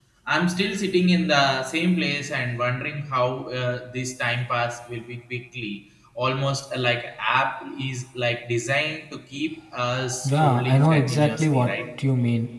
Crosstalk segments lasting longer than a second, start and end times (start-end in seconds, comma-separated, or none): 10.2-11.7